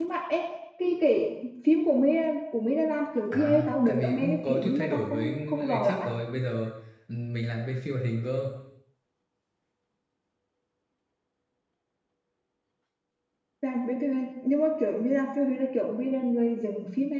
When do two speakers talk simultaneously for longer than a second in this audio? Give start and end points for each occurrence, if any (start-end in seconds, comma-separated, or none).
3.3-6.0